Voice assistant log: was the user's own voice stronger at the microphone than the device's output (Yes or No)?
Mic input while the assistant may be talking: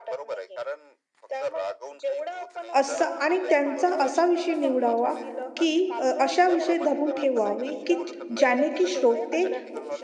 Yes